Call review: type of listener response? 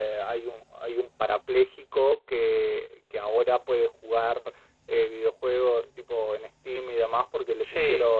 listening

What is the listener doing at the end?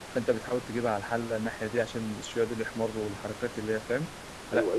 taking over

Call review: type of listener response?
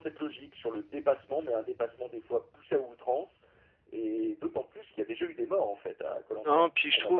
taking over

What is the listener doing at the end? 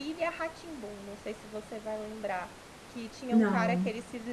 listening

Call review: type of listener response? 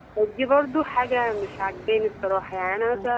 taking over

